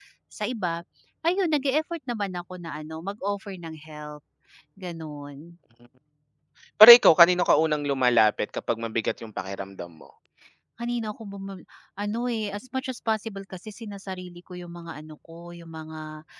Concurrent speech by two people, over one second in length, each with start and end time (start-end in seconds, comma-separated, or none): none